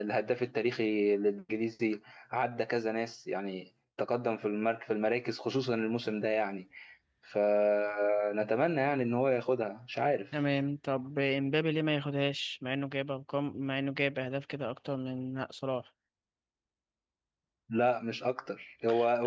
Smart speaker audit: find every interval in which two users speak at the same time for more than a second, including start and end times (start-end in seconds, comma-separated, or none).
none